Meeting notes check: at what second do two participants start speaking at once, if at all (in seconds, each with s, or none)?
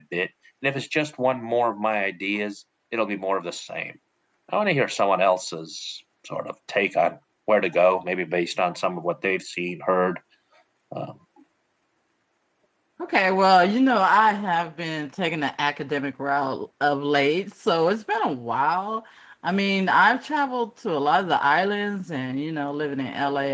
none